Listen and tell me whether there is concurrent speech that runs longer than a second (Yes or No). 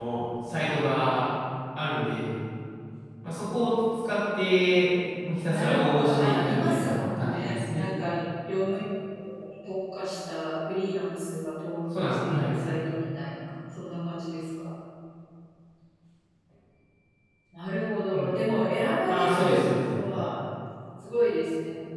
Yes